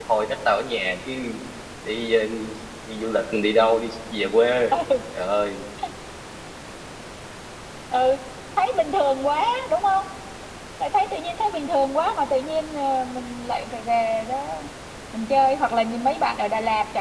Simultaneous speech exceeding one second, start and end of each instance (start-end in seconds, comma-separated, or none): none